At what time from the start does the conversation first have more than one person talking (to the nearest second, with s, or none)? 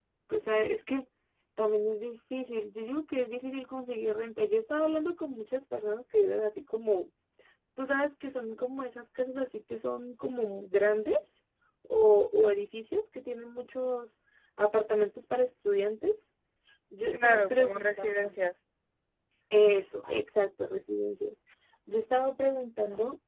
17 s